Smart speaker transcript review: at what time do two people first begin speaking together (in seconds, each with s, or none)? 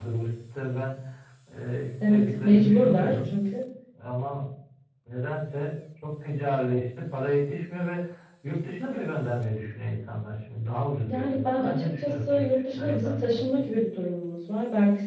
2.1 s